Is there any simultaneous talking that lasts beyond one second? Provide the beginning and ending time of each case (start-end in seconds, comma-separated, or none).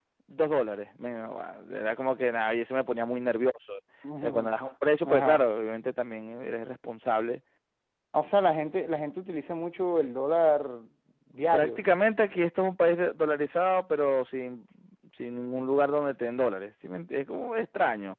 none